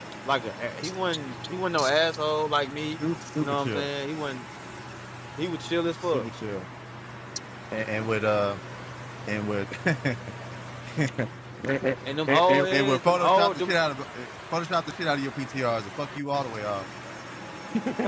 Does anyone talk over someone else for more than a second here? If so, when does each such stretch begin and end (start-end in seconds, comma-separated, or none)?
12.3-13.7